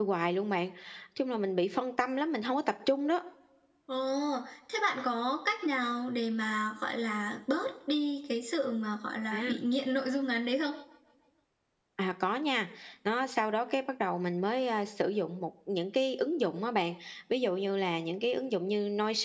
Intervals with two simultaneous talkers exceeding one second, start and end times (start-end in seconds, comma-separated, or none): none